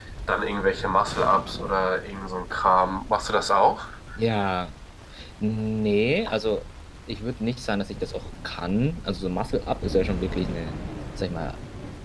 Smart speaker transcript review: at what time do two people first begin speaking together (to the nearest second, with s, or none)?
none